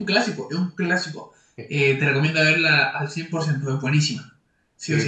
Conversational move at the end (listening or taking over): taking over